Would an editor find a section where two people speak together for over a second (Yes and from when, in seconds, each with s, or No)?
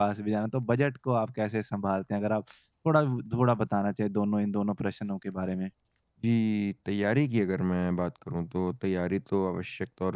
No